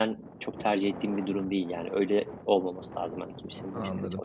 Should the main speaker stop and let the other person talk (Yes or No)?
Yes